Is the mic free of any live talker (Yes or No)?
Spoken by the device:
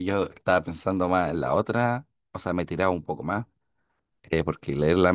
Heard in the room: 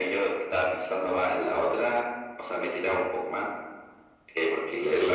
Yes